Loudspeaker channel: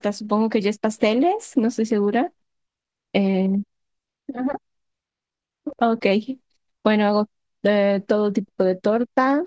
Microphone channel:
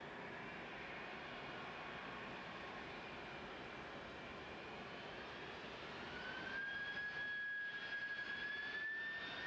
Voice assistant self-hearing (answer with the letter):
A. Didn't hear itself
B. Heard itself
A